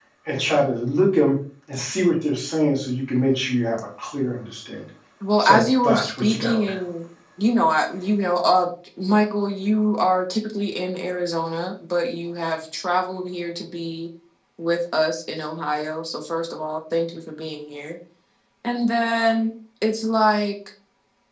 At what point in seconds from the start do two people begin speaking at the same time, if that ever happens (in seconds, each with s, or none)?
5.4 s